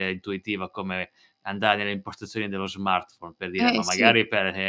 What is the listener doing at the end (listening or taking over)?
listening